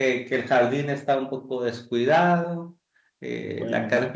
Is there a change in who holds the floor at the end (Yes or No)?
No